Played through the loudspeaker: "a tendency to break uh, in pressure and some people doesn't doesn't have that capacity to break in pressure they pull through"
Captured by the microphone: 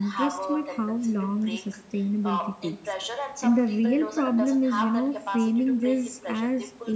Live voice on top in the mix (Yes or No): Yes